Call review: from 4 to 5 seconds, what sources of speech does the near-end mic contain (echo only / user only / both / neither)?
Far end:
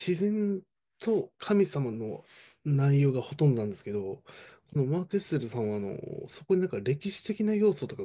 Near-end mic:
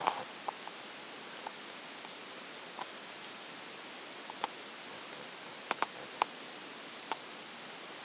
neither